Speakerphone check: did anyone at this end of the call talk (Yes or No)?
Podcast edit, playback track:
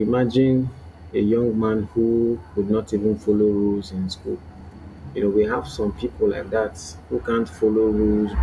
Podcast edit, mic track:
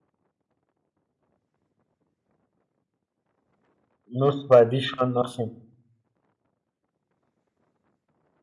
Yes